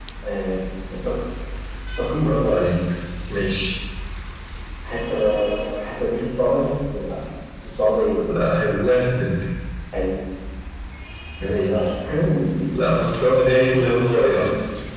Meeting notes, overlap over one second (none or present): none